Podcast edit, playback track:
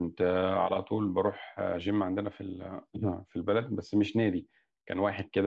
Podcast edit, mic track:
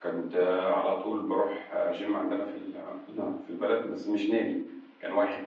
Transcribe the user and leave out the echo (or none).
none